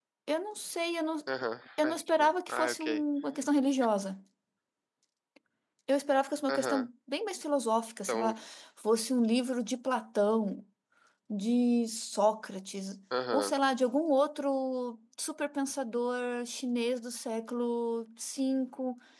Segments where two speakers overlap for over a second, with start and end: 1.8-3.0

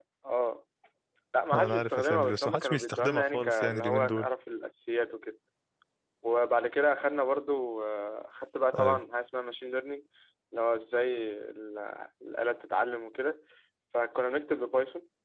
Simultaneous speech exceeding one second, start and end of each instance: 1.5-4.3

